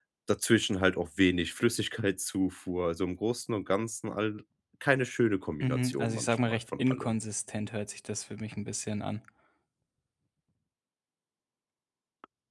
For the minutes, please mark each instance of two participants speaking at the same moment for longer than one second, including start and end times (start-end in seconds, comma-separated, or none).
5.6-7.2